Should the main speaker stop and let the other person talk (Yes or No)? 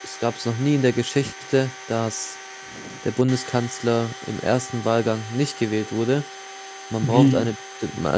No